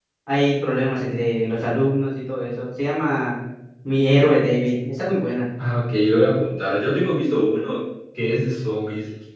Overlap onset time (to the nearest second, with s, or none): none